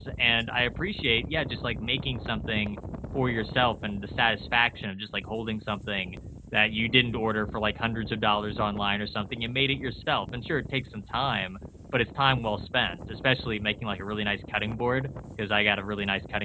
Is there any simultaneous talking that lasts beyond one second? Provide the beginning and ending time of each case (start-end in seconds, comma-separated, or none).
none